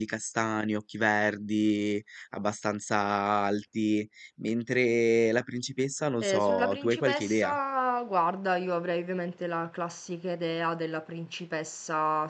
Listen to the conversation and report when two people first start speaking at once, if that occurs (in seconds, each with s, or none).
6.2 s